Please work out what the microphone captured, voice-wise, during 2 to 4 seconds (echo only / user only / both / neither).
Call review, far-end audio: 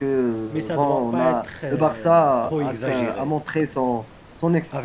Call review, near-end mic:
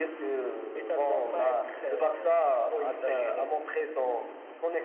echo only